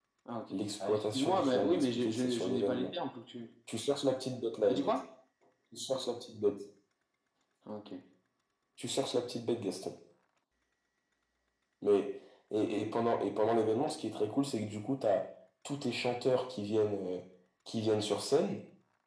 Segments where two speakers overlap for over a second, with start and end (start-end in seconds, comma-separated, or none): 0.5-2.9